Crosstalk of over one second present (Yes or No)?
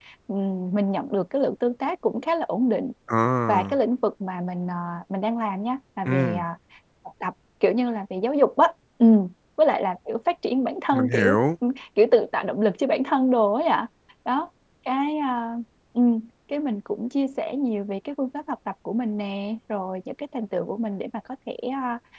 No